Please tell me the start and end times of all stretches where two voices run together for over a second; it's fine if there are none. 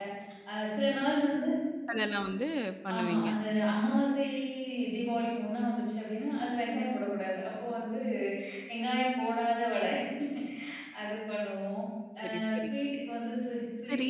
none

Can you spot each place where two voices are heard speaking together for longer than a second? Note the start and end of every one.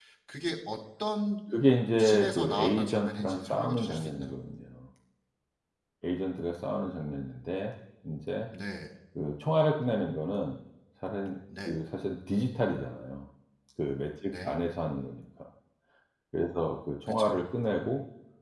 2.0-4.4

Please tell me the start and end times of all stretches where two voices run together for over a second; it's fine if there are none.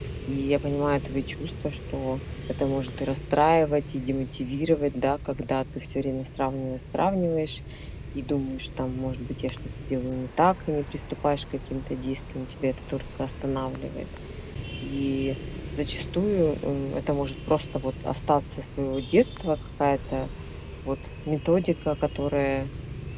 none

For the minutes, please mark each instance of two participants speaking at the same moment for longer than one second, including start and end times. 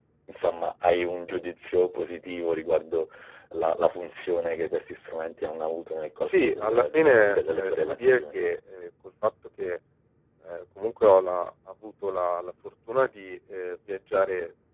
6.2-8.4

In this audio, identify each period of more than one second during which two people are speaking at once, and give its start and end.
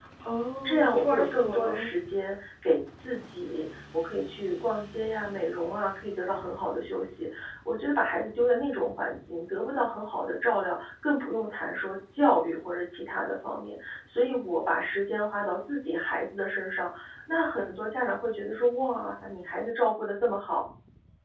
0.6-1.9

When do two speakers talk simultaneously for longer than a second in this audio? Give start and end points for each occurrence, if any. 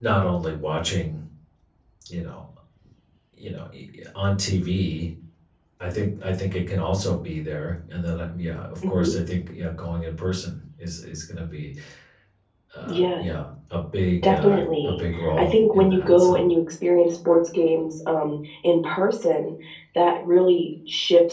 14.2-16.5

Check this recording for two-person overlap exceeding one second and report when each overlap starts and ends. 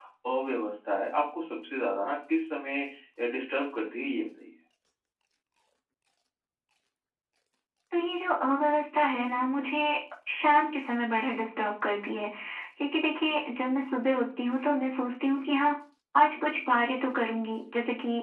none

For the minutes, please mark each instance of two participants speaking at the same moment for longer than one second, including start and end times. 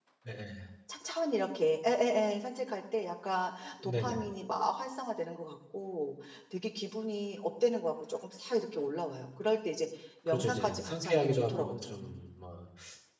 10.3-12.2

